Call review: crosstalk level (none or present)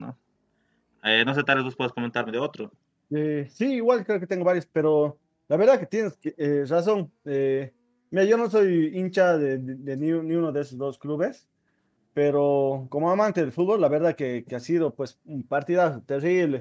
none